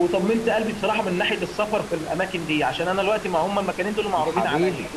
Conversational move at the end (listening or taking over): listening